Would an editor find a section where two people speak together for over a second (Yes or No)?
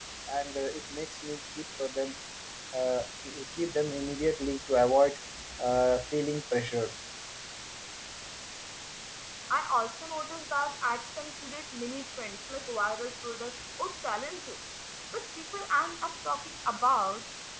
No